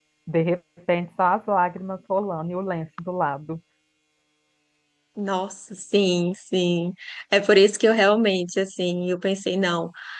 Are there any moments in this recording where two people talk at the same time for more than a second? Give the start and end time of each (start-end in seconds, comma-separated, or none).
none